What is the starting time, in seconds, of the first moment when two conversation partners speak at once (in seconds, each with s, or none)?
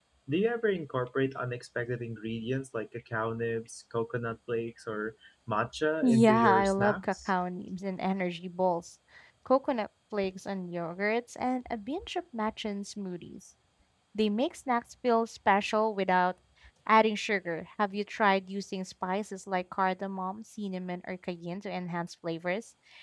6.0 s